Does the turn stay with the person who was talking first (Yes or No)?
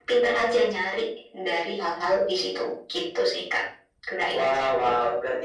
No